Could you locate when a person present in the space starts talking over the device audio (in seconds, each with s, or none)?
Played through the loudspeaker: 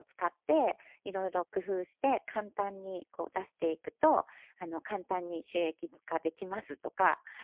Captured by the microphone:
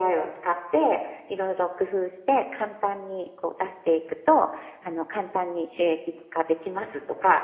none